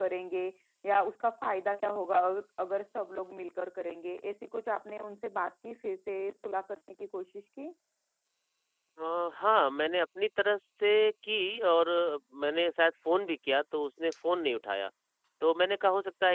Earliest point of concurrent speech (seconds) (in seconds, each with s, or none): none